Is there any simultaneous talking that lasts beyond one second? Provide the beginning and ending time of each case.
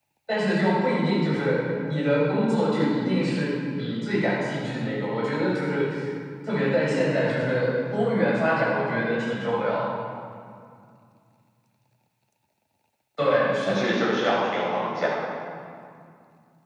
none

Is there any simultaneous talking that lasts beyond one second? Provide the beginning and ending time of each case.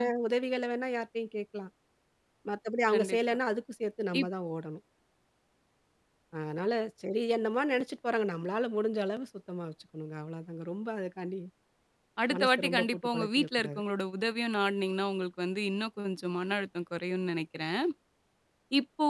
12.4-13.8

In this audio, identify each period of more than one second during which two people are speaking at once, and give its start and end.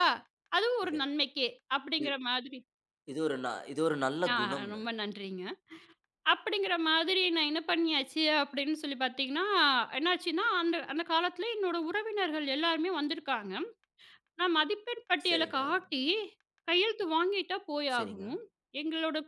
none

